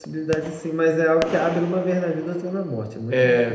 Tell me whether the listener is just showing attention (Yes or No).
No